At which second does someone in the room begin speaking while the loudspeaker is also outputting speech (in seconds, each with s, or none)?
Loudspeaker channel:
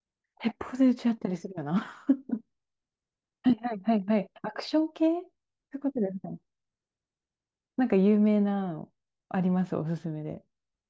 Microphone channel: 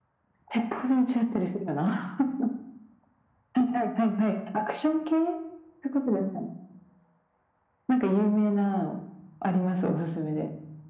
none